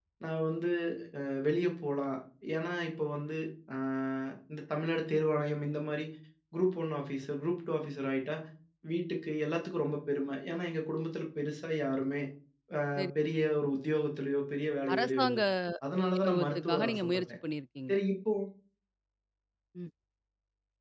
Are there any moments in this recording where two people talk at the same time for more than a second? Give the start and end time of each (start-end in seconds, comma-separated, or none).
16.2-17.4